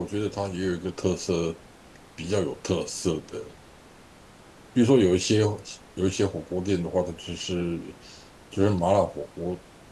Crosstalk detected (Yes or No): No